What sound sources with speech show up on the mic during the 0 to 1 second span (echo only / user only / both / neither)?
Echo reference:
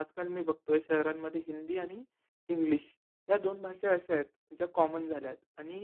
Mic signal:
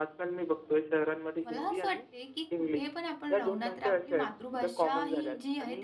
echo only